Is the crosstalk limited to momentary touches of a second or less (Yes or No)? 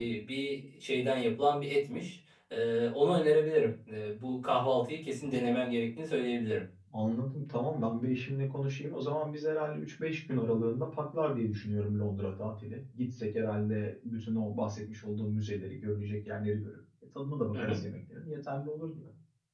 Yes